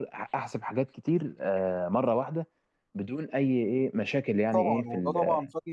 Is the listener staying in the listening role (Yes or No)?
No